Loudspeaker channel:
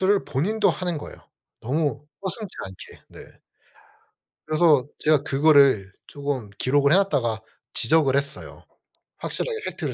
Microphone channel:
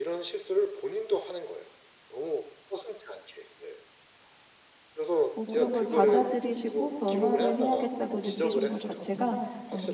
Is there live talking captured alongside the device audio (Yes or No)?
Yes